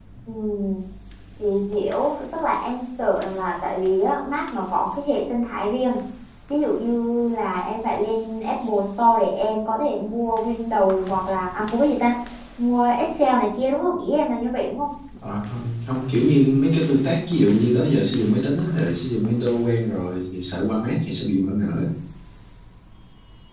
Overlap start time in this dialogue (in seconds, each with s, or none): none